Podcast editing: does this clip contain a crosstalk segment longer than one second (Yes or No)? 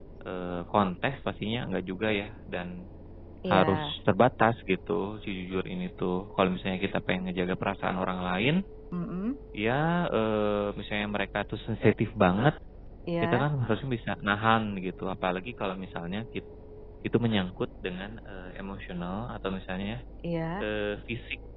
No